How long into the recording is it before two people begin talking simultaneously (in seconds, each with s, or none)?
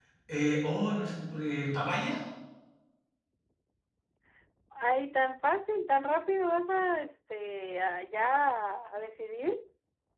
none